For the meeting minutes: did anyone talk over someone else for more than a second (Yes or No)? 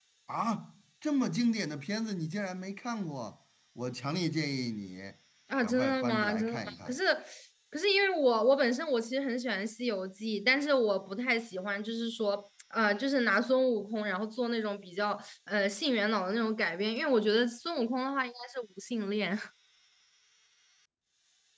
Yes